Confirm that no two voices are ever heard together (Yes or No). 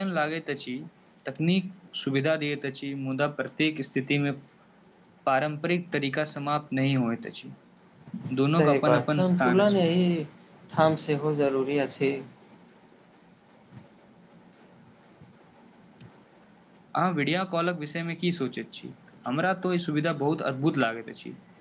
No